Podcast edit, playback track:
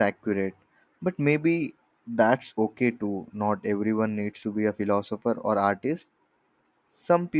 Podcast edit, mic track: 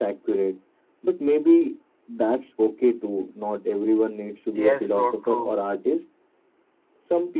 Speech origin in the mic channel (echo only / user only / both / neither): both